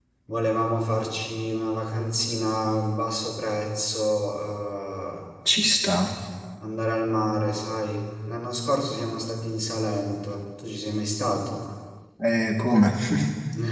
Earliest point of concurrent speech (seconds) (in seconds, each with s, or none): none